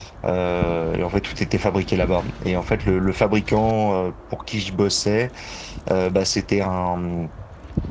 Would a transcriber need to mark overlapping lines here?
No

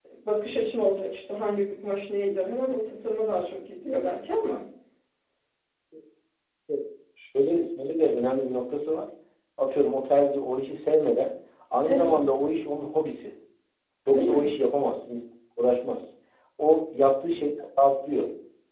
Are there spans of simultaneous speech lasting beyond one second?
No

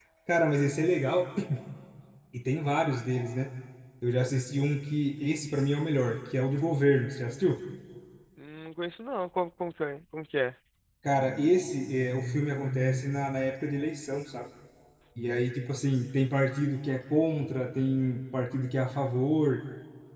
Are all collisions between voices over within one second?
Yes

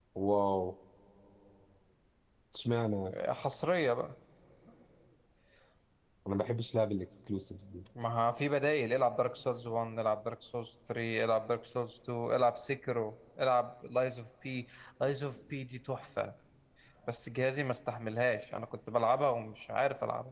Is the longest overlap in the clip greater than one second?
No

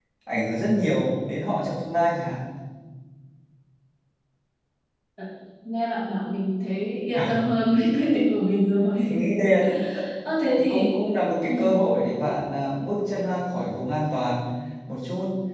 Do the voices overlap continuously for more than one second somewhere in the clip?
No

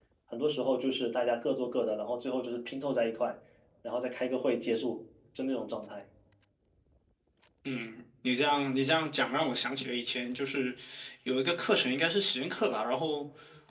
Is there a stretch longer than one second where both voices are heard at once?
No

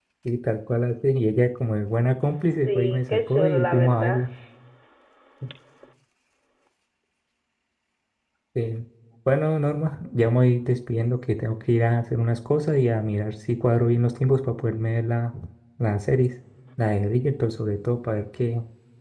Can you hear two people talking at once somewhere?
Yes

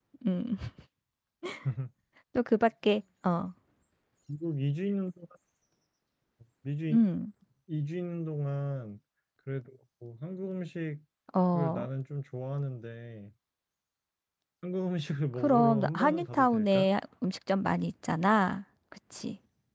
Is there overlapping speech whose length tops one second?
Yes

